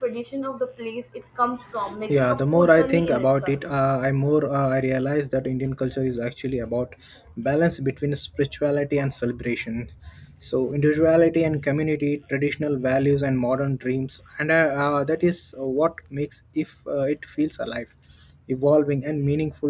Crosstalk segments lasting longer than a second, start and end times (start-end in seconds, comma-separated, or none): 2.1-3.6